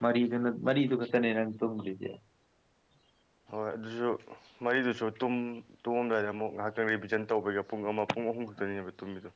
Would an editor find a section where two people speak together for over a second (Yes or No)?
No